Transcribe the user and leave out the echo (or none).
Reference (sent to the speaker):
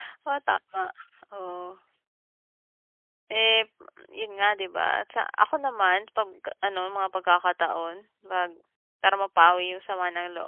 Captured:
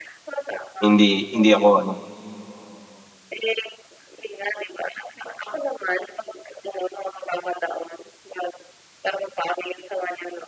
hindi hindi ako ano.